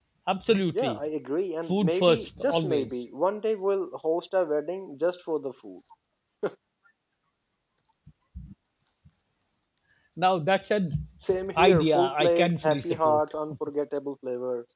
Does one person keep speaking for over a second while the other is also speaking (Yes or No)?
Yes